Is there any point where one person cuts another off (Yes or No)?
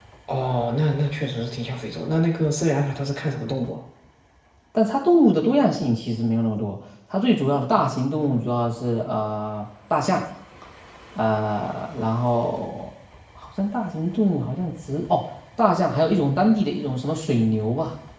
No